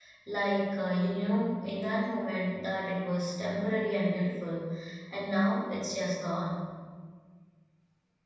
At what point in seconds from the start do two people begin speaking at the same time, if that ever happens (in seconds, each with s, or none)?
none